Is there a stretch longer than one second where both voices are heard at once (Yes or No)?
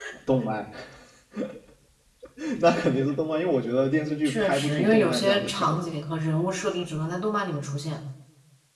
Yes